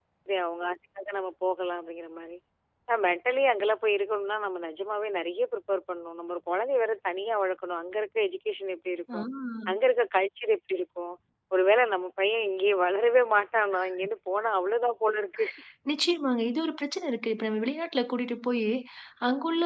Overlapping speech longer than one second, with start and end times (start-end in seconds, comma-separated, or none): none